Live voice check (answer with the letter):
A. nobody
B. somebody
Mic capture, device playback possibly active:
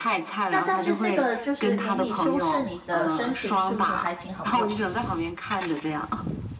B